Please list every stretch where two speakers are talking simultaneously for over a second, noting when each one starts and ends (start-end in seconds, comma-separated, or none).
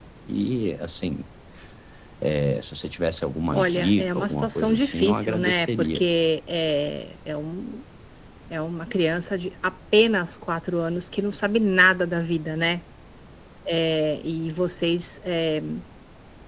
3.5-6.1